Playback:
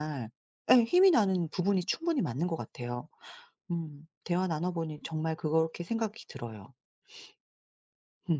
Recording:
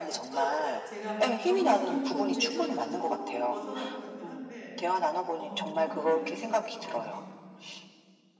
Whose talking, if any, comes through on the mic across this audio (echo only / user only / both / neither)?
both